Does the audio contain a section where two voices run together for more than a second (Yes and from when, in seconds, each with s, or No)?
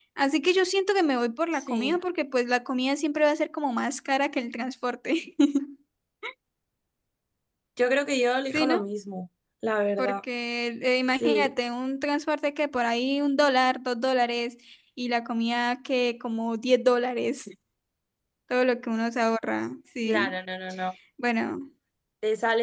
No